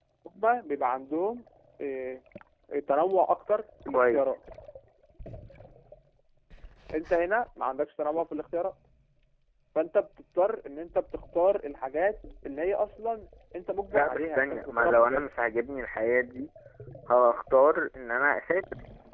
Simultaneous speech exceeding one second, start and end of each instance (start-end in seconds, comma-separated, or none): 13.9-15.3